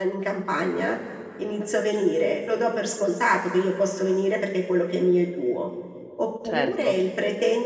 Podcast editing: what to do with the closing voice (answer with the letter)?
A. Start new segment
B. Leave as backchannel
B